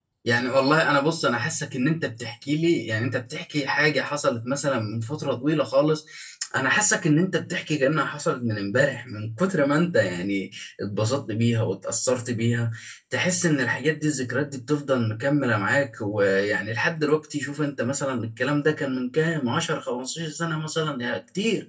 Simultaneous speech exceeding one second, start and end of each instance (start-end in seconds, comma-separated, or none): none